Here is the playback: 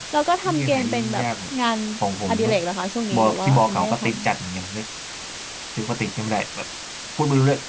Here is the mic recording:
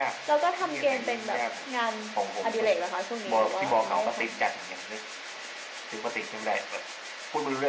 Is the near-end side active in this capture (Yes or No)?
No